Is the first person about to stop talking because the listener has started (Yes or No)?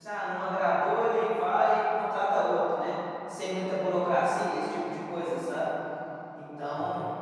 No